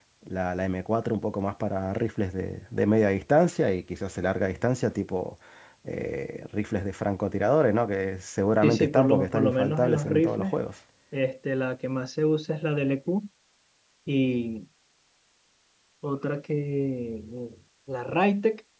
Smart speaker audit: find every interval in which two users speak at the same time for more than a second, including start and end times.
8.6-10.5

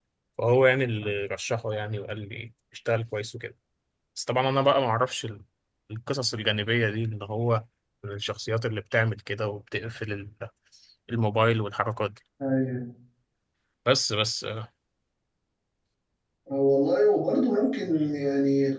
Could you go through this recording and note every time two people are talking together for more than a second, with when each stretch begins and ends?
none

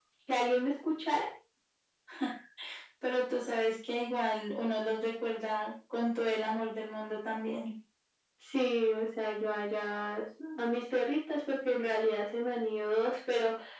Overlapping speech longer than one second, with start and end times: none

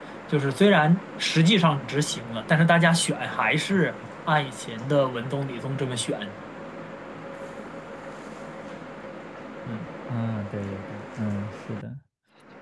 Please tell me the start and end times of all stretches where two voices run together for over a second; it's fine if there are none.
none

